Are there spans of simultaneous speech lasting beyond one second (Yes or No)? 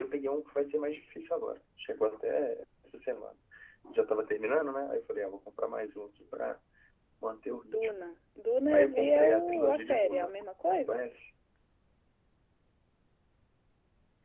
Yes